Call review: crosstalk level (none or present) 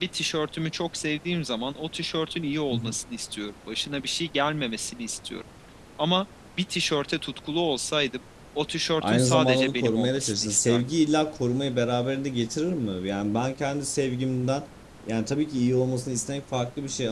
present